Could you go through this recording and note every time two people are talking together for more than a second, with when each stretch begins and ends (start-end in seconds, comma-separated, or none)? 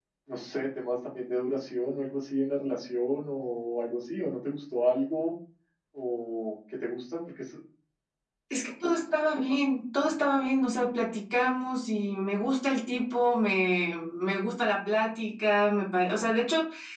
none